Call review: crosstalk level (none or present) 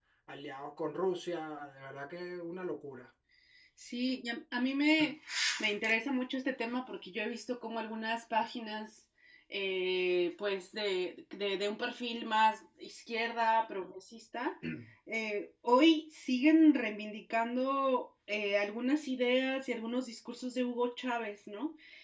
none